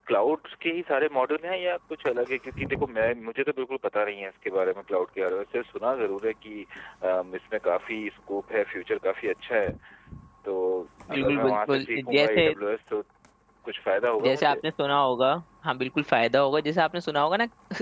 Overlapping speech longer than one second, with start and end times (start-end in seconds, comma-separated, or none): 11.1-12.5